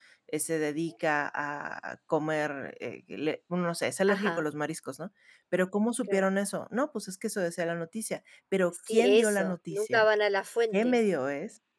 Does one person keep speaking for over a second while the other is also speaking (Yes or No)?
Yes